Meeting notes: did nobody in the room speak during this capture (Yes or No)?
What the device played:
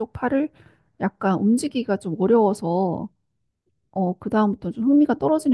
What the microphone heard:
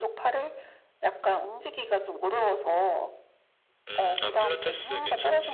No